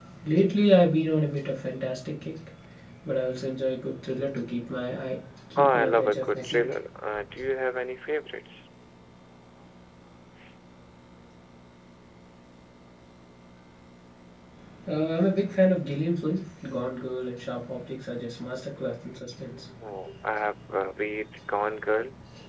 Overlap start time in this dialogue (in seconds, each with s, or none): 5.6 s